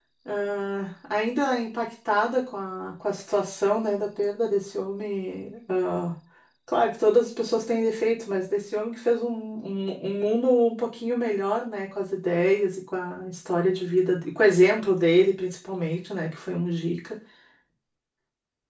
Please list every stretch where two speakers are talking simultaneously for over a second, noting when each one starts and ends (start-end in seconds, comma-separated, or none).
none